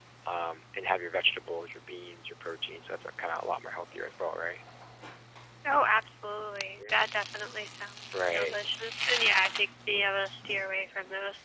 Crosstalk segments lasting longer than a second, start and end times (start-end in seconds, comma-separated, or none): none